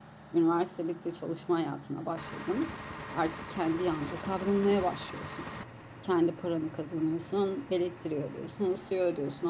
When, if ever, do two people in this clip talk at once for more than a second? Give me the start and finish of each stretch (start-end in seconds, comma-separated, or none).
none